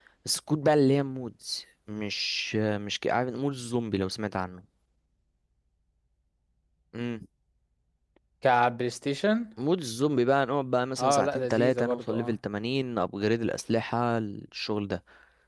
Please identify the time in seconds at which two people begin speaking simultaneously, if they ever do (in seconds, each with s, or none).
11.0 s